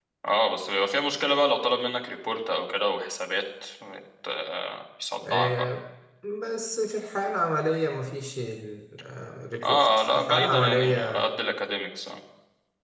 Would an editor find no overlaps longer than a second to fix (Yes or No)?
No